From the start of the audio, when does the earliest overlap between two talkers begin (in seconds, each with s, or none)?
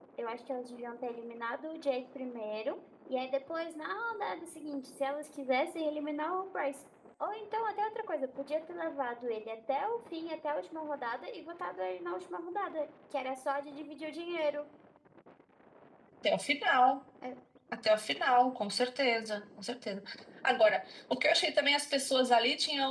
none